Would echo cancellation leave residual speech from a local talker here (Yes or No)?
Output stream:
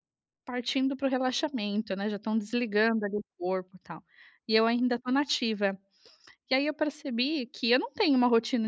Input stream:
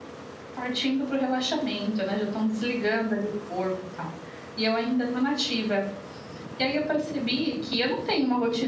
No